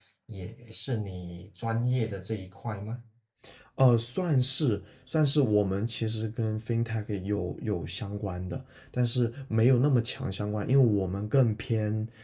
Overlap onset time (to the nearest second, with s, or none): none